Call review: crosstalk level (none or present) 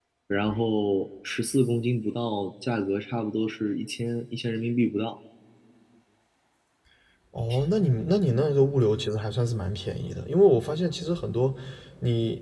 none